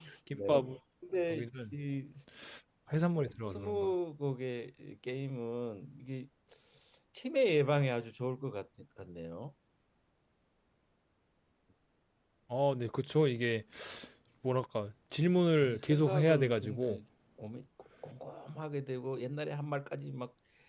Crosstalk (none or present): present